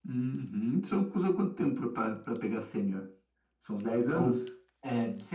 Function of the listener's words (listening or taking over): taking over